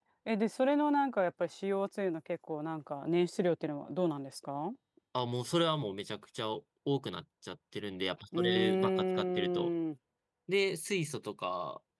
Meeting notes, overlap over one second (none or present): present